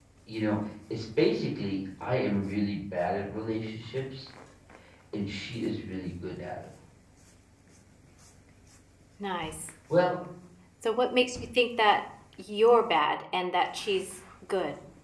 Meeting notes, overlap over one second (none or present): none